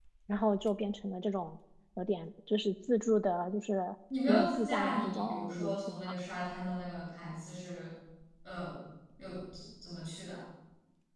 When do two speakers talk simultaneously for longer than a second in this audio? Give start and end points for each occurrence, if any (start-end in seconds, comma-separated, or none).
4.3-6.2